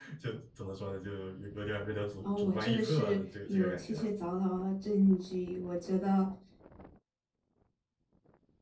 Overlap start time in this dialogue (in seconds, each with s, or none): 2.2 s